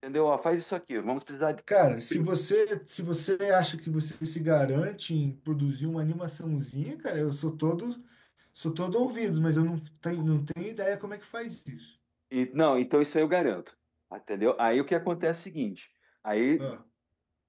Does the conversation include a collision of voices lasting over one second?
No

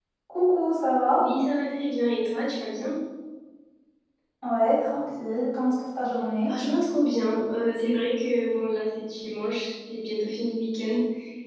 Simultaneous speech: No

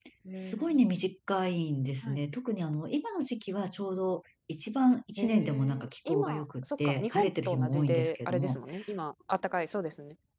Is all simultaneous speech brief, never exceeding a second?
No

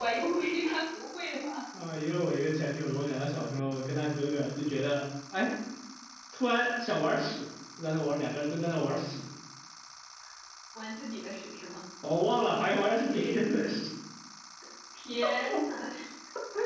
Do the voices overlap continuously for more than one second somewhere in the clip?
No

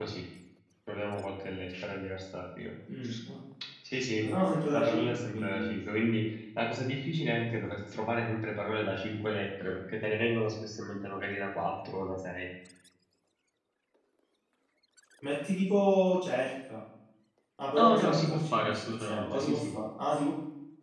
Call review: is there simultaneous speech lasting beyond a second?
Yes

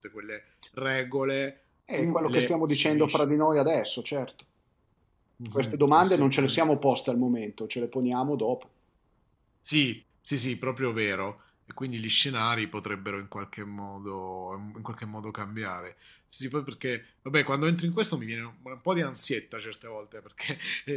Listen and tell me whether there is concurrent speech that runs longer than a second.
Yes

